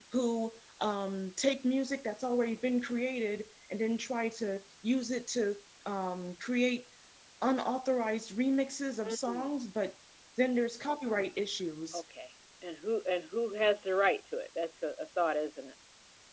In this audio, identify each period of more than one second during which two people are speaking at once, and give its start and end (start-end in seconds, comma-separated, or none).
none